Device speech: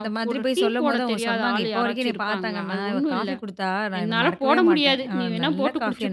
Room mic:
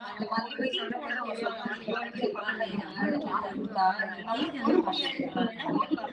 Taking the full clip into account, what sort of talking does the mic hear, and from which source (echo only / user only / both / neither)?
both